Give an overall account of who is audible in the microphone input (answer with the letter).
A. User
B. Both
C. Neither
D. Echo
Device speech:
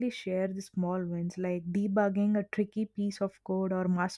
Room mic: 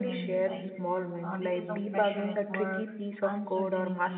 B